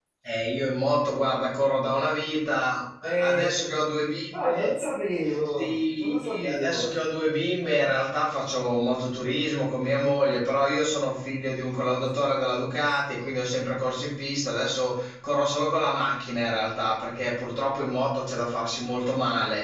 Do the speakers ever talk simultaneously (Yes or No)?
Yes